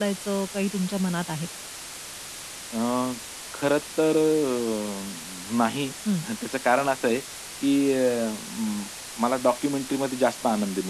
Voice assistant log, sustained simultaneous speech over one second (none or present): none